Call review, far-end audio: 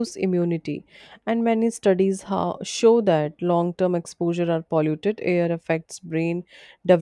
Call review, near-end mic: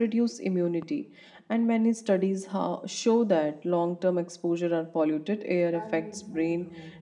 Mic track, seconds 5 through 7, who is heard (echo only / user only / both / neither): both